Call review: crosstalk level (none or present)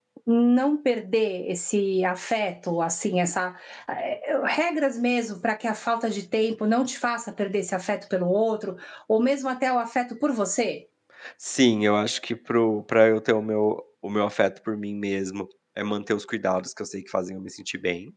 none